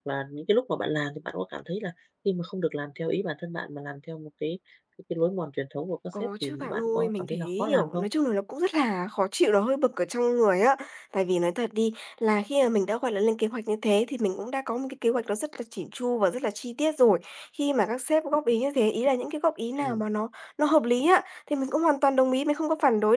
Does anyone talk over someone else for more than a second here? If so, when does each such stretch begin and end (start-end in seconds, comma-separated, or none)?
6.2-8.1